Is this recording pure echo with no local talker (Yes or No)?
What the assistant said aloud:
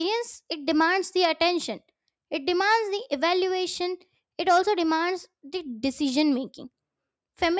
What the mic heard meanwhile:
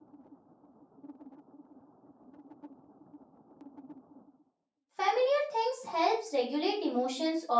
No